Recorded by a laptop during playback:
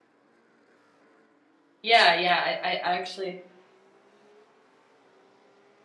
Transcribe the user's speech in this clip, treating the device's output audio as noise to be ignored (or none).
Yeah, yeah, I I actually